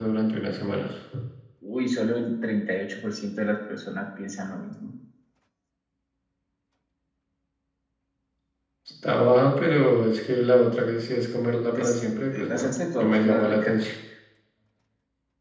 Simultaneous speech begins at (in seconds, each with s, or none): 11.8 s